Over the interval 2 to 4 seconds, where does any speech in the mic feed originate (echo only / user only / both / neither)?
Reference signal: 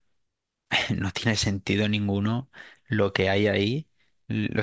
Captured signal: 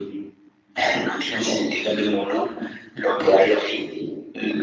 echo only